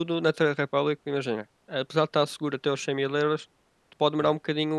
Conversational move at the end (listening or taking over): listening